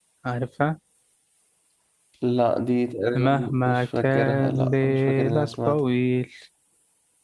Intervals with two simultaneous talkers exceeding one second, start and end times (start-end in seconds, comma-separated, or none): 3.1-5.8